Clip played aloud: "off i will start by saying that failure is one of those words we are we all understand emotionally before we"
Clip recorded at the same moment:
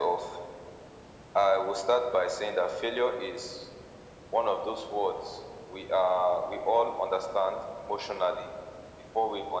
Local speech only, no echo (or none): none